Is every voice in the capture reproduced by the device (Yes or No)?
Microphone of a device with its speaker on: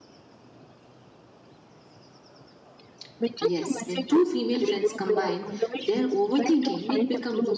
No